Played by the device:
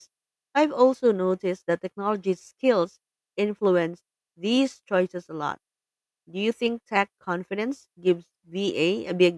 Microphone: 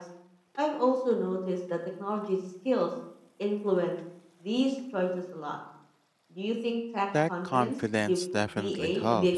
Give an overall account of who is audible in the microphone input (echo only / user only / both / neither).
both